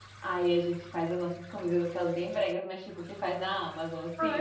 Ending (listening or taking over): taking over